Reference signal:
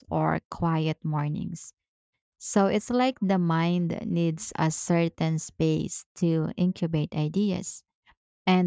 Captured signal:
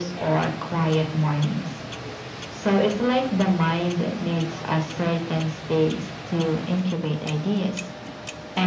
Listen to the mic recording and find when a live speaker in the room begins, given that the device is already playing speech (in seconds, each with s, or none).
none